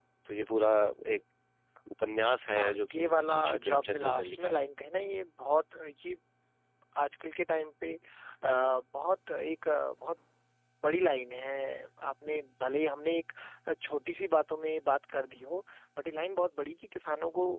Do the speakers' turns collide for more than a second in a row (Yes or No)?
Yes